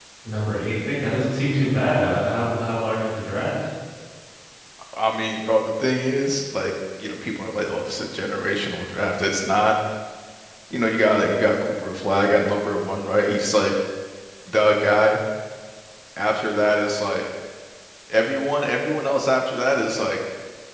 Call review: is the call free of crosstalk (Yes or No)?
Yes